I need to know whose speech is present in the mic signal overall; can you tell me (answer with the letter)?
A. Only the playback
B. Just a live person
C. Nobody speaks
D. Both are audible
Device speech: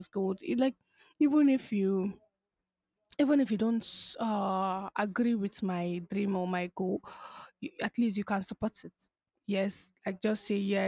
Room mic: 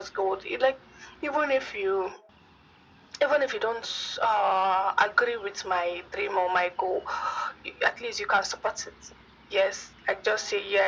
A